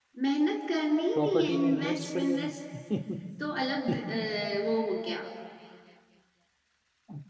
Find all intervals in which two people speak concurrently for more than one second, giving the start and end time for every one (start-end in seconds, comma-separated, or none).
1.1-2.5